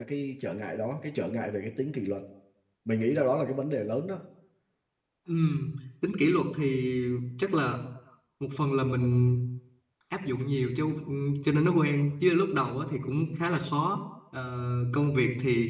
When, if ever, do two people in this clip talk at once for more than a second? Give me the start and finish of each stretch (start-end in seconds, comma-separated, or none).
none